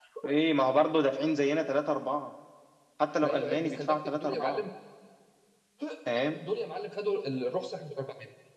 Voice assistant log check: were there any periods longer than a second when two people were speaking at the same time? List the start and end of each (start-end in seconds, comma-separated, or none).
3.2-4.6